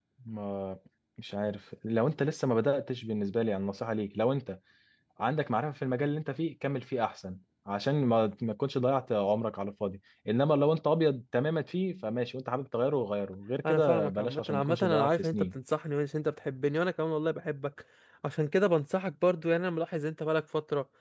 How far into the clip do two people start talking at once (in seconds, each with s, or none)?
13.6 s